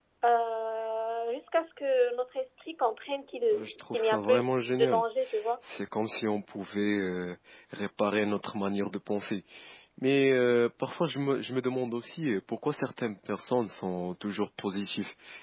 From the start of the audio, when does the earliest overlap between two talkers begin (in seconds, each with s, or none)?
3.5 s